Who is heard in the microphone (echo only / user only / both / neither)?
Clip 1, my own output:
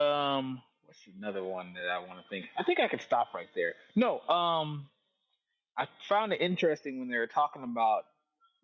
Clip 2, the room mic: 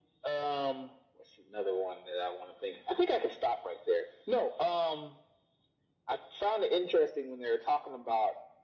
echo only